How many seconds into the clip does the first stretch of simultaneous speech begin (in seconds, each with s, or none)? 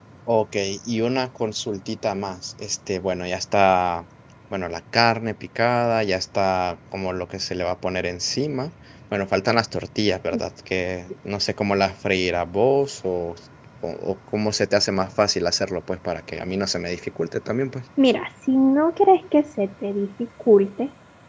none